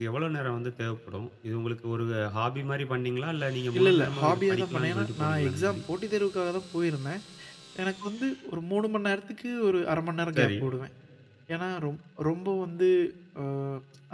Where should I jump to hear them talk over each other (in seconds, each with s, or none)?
3.8 s